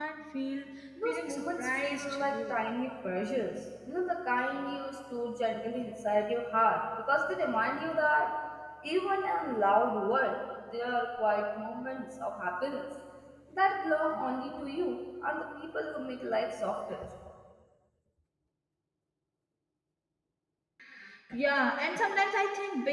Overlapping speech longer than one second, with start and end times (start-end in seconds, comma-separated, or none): 1.1-2.5